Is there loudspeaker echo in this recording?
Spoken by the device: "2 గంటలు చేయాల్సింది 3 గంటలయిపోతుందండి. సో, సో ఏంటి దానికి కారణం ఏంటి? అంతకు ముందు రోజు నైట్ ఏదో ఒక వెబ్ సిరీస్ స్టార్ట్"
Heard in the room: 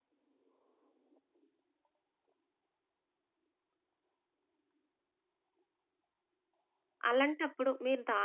No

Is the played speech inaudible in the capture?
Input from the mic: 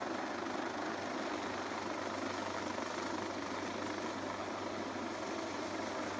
Yes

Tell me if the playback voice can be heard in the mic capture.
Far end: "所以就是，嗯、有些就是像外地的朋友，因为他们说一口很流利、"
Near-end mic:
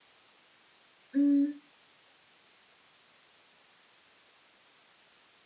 No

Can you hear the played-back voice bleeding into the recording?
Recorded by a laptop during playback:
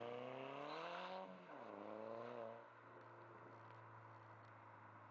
No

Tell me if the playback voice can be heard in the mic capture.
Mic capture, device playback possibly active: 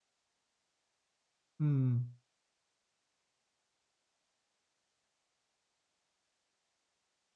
No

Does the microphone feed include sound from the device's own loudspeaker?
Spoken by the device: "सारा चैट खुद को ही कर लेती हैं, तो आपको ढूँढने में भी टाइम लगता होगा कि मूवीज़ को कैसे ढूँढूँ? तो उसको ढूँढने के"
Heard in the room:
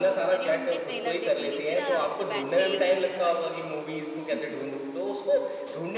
Yes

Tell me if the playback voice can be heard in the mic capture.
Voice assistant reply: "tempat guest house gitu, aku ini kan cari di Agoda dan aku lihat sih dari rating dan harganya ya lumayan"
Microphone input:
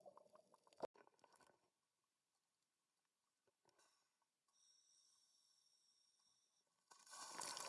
No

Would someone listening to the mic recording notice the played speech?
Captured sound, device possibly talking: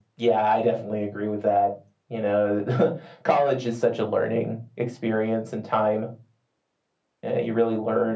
Yes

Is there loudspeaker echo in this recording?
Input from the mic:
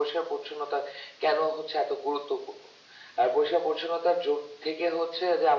Yes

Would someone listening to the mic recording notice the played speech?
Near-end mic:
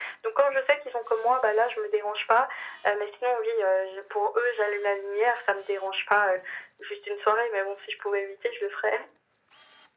Yes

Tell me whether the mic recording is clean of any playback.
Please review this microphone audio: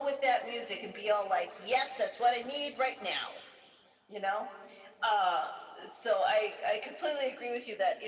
No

